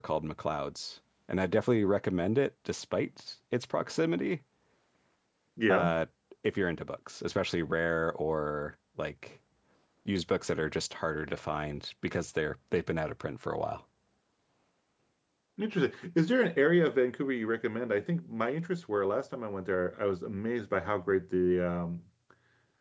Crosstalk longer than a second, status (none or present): none